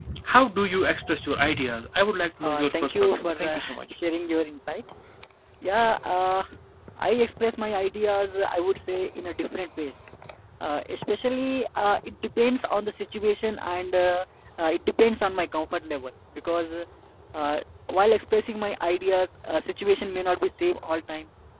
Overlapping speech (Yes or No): Yes